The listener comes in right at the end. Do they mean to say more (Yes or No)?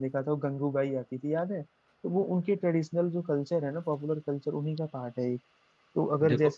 No